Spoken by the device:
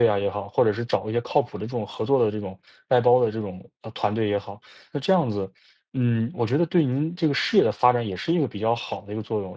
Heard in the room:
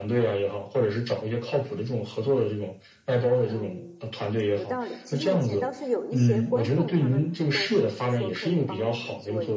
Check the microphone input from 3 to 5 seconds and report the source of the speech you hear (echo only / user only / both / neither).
both